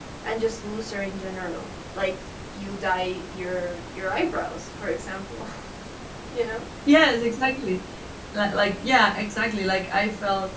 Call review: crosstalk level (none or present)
none